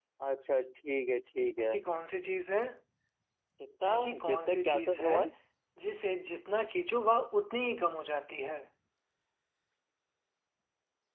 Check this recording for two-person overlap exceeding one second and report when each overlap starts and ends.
3.9-5.2

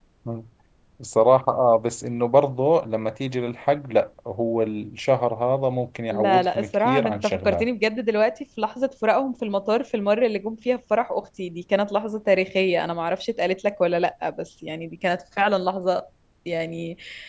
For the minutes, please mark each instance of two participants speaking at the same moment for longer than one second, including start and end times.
6.1-7.7

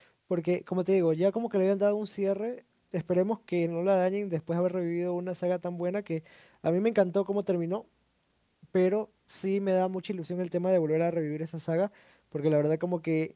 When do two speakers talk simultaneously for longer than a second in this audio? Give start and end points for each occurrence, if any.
none

